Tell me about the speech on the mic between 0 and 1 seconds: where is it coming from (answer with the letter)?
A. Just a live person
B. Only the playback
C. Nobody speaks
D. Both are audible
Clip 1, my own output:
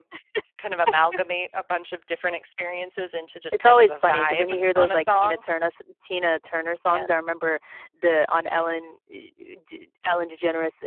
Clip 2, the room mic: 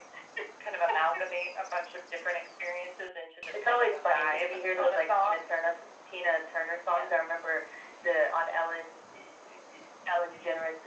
B